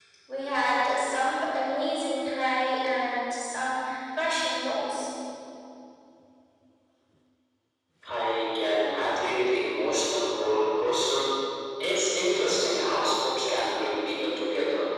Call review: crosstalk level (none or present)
none